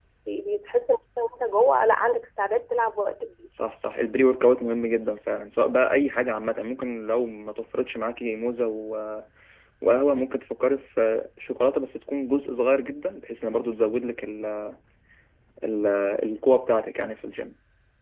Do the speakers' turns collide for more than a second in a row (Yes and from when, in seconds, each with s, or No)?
No